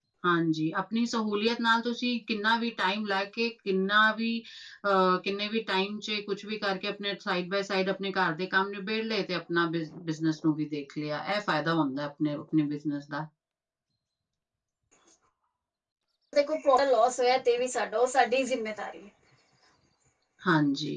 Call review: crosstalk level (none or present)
none